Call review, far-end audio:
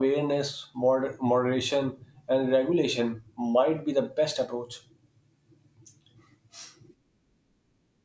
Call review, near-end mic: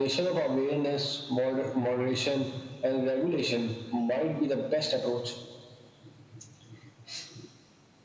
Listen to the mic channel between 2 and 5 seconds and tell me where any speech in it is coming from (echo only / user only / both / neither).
echo only